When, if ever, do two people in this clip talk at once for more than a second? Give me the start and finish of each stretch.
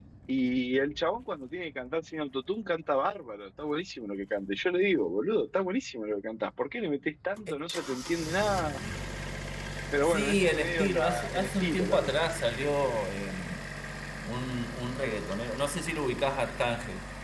10.0-12.1

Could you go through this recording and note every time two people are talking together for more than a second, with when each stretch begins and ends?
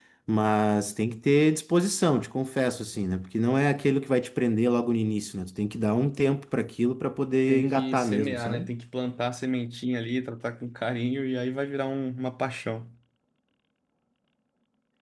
7.5-8.7

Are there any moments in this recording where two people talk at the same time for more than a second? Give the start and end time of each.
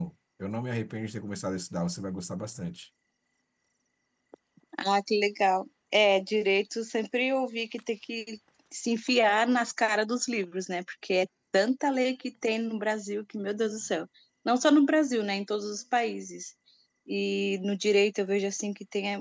none

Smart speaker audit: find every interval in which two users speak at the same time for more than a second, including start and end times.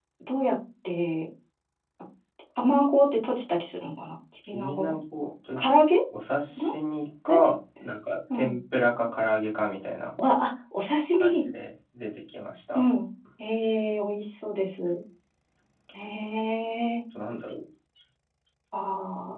none

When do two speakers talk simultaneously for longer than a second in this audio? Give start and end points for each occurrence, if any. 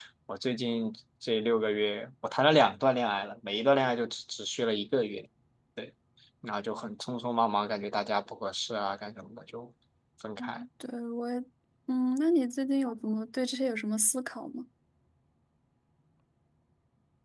none

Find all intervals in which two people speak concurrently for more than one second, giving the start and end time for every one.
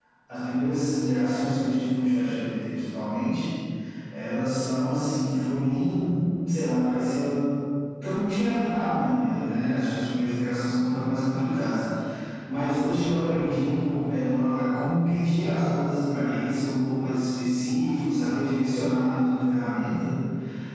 none

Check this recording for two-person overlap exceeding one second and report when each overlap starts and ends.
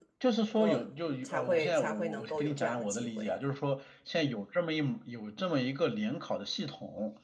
1.2-3.3

